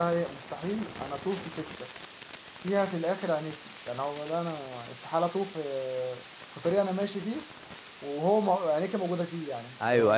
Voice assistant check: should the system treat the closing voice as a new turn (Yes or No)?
Yes